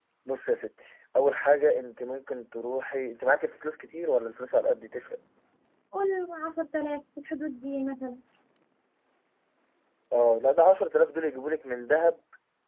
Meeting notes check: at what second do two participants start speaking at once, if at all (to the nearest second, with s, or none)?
none